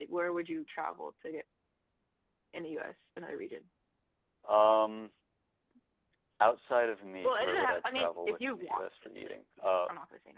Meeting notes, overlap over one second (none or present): present